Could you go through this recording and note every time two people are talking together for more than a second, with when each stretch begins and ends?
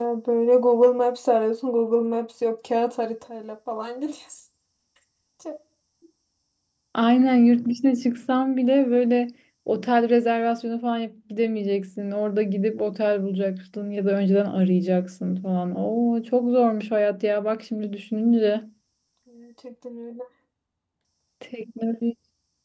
none

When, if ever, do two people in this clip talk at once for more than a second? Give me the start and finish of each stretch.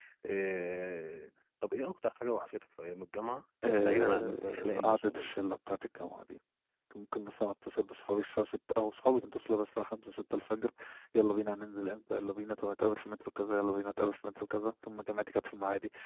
3.9-5.3

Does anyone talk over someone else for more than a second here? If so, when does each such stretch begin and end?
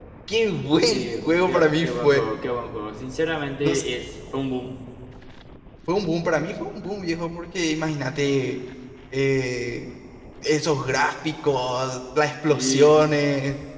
0.9-2.2

